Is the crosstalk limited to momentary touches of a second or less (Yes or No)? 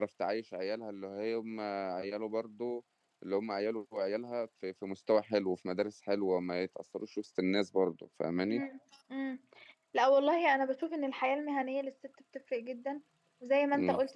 Yes